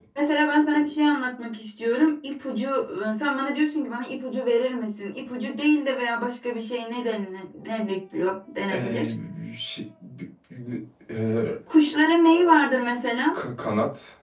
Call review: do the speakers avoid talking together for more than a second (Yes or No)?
Yes